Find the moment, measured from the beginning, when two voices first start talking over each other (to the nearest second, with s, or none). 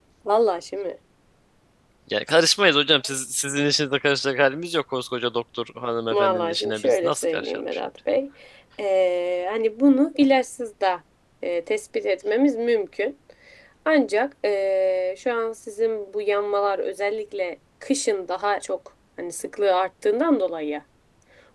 6 s